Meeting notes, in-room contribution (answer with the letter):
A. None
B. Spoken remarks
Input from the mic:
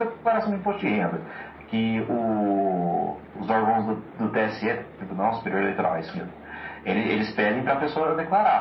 A